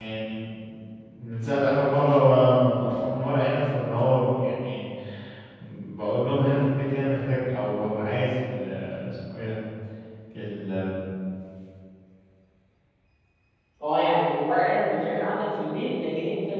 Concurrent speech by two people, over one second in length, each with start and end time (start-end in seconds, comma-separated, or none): none